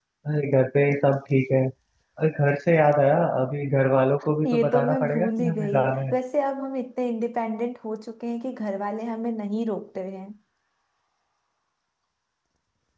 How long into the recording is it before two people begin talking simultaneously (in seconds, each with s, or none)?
4.4 s